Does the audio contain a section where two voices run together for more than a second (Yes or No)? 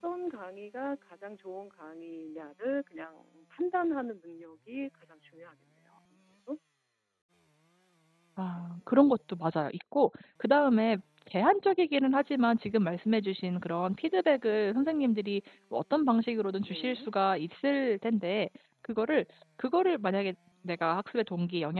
No